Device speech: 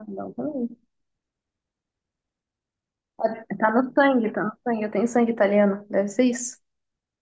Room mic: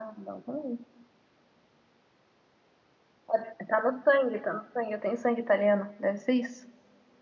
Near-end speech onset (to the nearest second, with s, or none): none